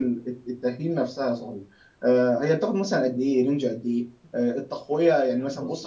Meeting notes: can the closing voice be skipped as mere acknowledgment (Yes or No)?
Yes